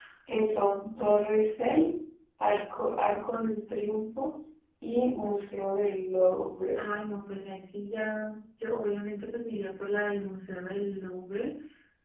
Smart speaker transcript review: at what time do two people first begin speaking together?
none

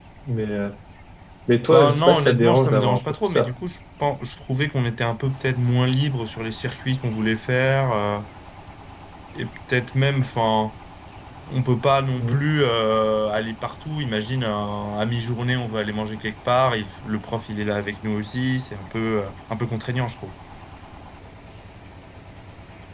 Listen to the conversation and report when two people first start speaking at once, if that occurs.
2 s

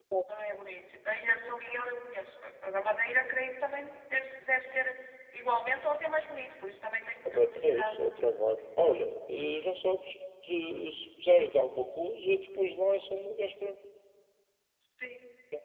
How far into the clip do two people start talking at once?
7 s

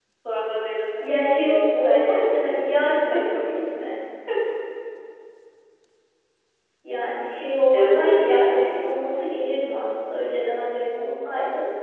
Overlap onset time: 1 s

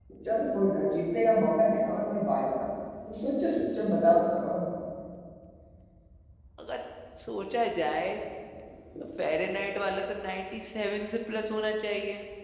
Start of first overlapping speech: none

